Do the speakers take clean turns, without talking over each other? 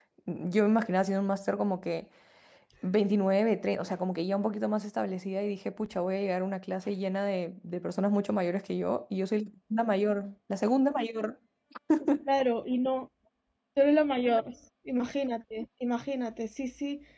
Yes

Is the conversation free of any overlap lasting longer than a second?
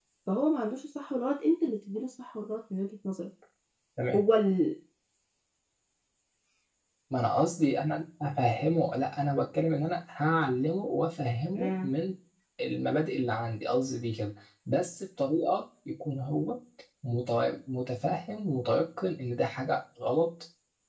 Yes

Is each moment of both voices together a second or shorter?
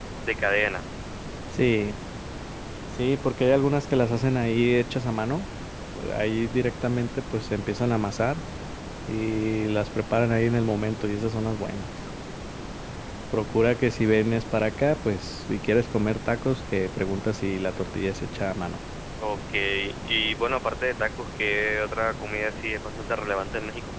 Yes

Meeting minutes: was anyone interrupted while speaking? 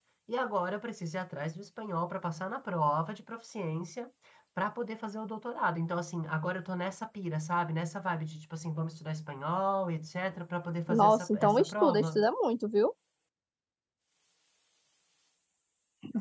Yes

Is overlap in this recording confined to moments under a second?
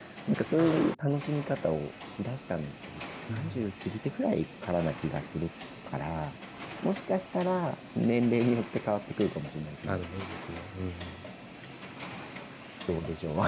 Yes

